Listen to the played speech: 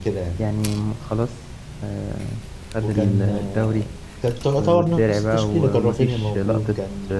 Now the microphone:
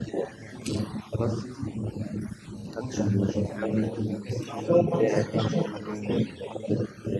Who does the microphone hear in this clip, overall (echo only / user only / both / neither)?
both